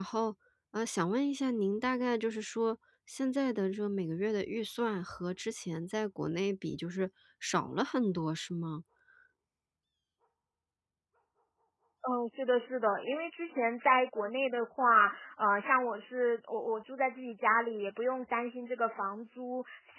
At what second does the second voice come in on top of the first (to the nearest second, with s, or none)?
none